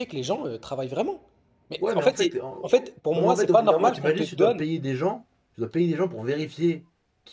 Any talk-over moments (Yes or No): Yes